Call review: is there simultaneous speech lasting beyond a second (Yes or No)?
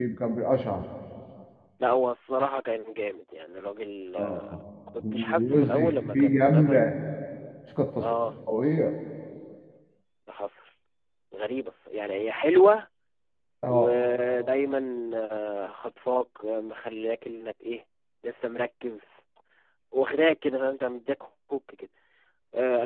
Yes